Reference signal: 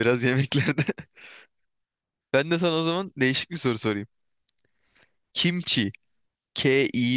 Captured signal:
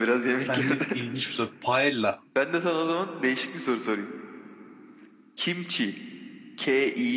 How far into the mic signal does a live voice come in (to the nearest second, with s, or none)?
0 s